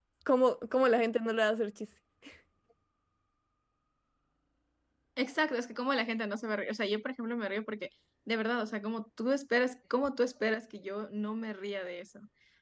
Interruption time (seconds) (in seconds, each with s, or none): none